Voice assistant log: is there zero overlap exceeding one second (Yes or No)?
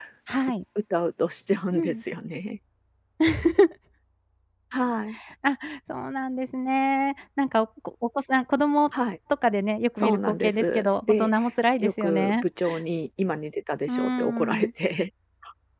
No